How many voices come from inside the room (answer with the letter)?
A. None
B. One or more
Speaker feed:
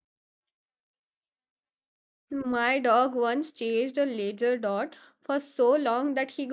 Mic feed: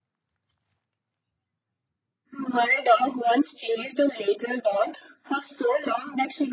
A